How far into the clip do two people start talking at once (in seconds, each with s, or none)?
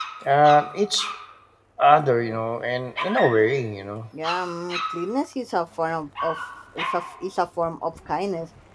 none